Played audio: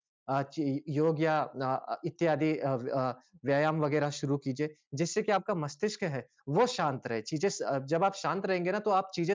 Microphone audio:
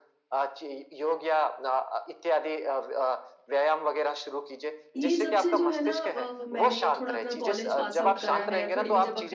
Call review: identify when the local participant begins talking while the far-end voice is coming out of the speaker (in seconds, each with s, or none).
5.0 s